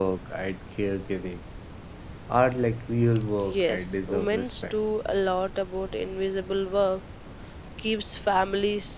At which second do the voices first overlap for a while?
3.4 s

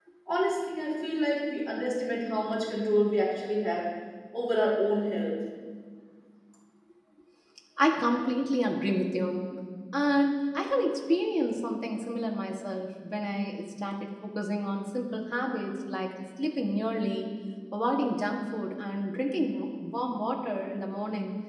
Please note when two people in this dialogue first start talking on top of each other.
none

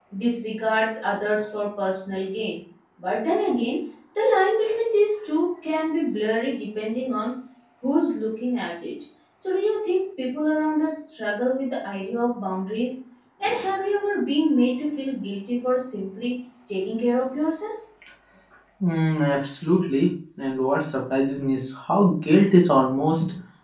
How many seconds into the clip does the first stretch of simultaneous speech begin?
none

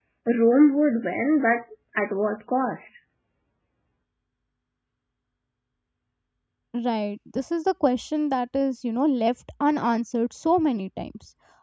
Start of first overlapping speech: none

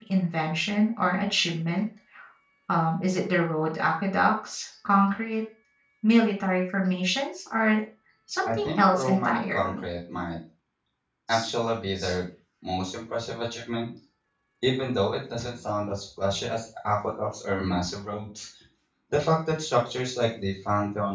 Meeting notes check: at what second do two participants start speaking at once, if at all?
8.4 s

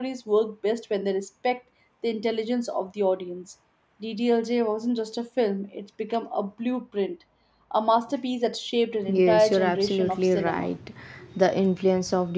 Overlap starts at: 9.0 s

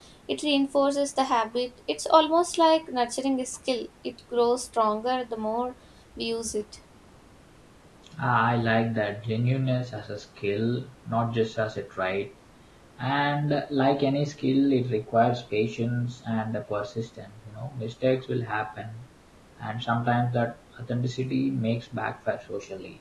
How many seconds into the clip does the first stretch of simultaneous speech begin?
none

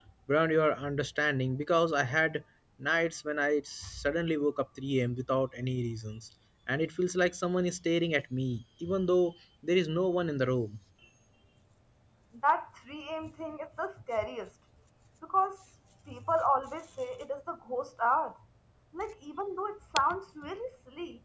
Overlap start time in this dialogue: none

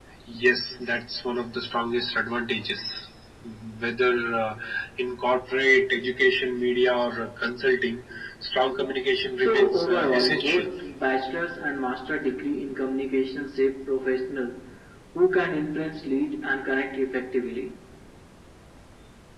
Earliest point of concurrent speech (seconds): 9.4 s

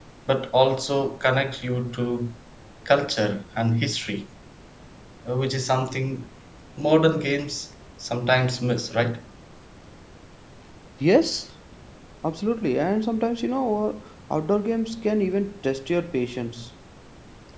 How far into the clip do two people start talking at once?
none

